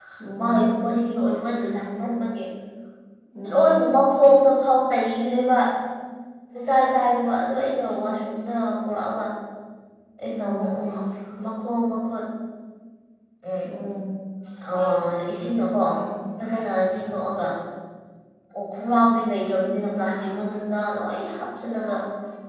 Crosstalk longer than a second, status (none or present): none